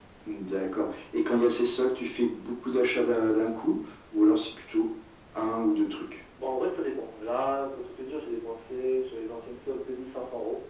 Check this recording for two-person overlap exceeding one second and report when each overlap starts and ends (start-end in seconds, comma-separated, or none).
none